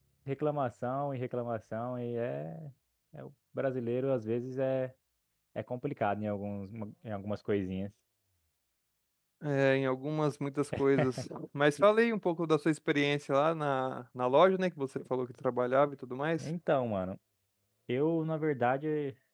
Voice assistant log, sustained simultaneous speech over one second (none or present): none